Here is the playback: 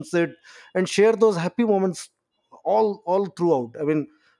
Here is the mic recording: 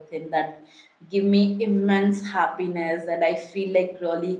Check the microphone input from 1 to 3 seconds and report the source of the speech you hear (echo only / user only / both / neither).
user only